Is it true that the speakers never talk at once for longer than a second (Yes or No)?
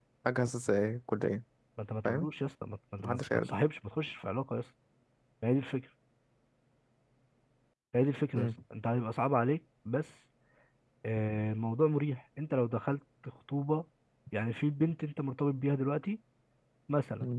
Yes